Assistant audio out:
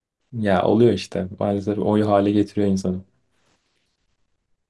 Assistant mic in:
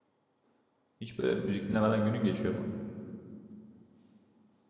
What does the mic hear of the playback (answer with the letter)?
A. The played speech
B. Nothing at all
B